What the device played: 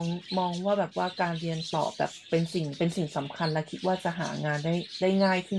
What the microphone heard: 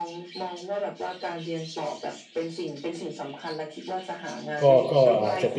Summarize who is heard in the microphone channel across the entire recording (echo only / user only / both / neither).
both